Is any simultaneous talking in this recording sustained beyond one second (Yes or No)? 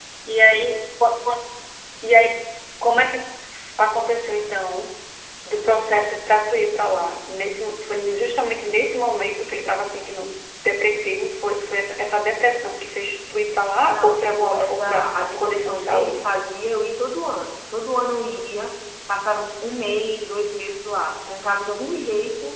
Yes